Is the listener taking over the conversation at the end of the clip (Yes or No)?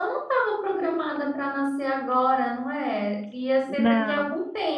No